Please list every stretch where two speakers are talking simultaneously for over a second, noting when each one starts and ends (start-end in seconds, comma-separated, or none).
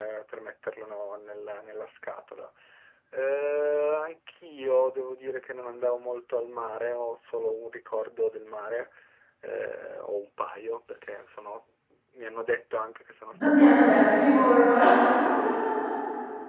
13.5-15.0